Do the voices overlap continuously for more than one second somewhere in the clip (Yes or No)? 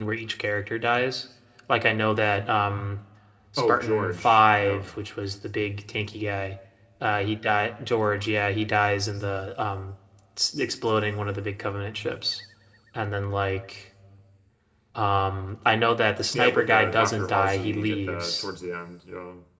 Yes